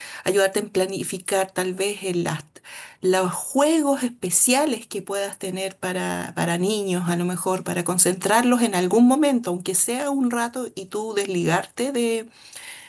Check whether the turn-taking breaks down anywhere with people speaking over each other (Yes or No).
No